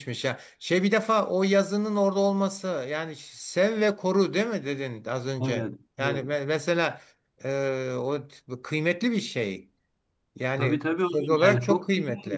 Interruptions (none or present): present